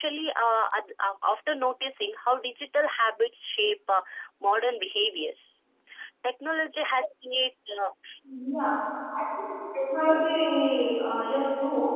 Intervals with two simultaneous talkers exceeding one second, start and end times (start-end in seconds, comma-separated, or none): none